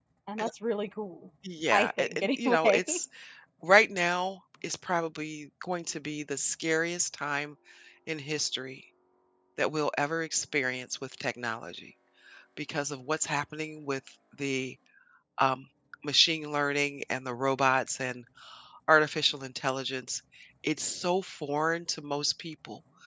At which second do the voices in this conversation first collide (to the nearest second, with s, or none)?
2 s